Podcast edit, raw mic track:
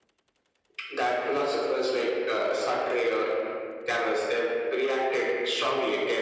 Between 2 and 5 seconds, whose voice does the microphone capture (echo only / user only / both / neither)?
echo only